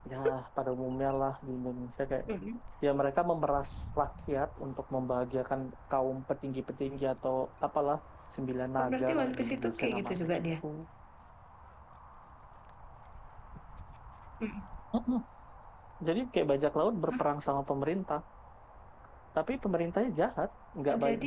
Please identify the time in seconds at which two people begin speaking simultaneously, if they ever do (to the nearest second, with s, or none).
9 s